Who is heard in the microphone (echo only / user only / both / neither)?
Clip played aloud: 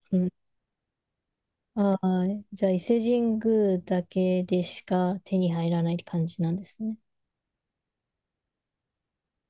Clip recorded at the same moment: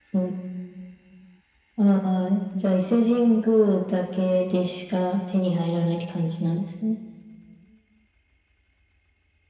echo only